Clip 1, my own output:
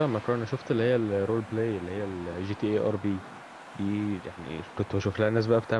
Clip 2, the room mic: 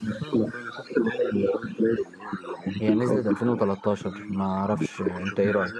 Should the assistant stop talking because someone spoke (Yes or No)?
Yes